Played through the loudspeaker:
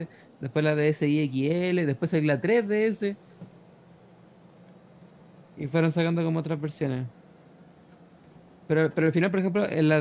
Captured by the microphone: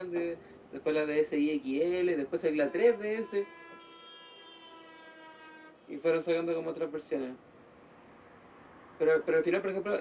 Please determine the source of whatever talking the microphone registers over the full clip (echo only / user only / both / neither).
echo only